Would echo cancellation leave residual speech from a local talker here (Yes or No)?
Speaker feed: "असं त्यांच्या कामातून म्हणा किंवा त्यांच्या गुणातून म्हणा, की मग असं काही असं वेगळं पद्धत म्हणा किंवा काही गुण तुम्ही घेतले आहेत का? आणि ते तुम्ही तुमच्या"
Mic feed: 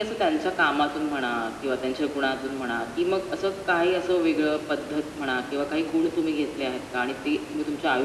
No